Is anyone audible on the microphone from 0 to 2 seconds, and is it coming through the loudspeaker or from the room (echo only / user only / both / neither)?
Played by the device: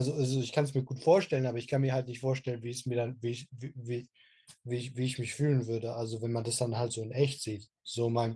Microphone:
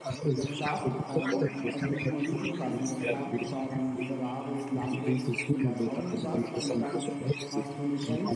both